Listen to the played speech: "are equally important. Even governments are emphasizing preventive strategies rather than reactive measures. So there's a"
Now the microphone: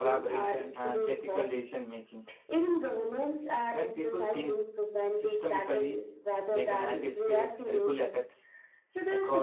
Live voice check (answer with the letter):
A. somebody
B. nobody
A